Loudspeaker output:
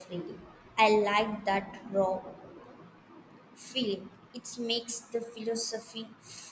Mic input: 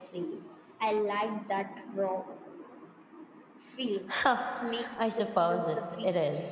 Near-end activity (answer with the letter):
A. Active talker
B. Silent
A